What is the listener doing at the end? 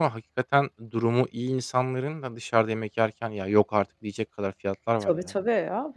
taking over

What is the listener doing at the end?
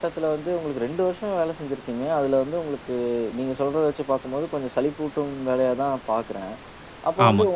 listening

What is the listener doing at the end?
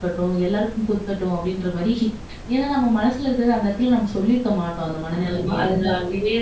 taking over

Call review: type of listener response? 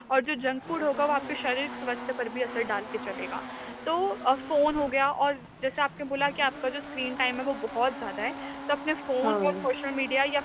listening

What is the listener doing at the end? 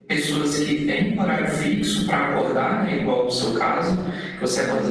listening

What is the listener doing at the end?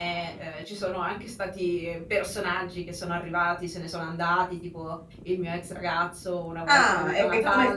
taking over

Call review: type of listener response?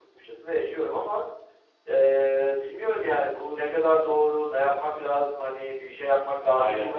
listening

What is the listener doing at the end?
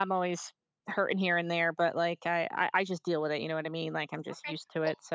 taking over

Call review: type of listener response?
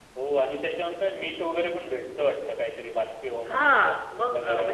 taking over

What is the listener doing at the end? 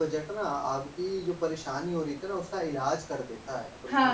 taking over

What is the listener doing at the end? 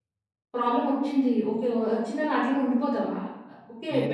listening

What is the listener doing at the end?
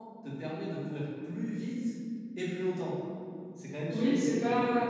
taking over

